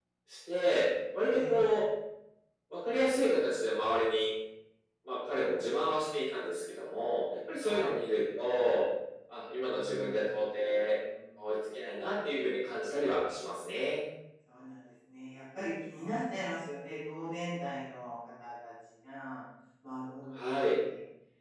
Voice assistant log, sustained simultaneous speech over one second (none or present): present